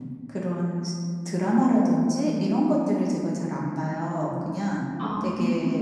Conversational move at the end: listening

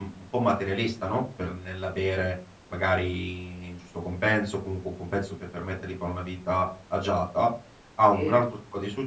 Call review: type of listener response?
listening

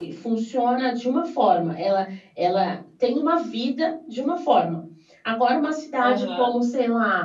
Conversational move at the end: listening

